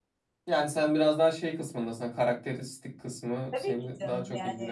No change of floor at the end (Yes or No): No